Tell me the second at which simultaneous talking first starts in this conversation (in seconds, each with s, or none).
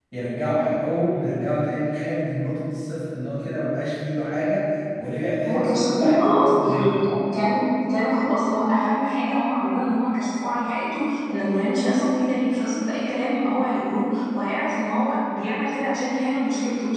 5.5 s